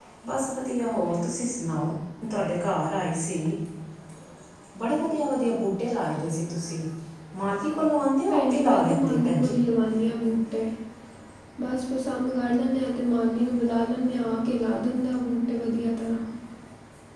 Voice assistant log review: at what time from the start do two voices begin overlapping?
8 s

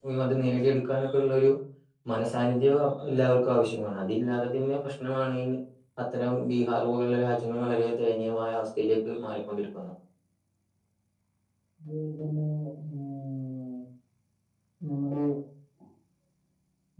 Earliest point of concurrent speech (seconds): none

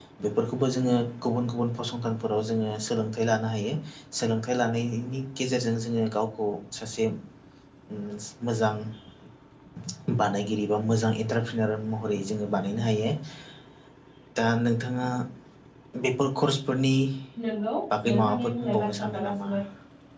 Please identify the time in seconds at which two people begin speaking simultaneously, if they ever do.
18 s

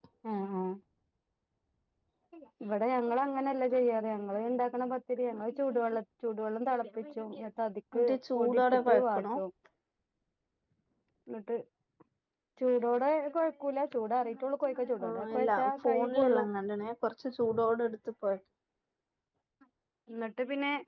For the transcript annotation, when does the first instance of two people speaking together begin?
8 s

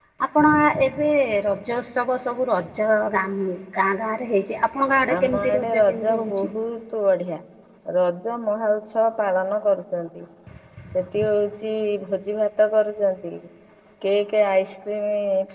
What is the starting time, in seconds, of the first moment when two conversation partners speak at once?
5 s

